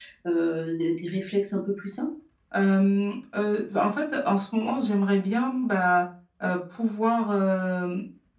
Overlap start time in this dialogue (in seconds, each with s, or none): none